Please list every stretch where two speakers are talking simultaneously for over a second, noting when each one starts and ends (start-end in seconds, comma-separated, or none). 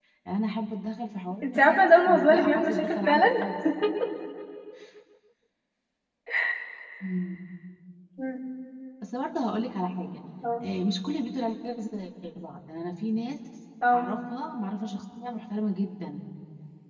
1.4-3.3